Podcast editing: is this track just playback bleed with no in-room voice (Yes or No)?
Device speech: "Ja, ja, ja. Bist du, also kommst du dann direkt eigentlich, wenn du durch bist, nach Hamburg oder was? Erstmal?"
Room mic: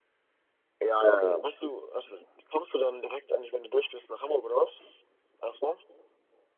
Yes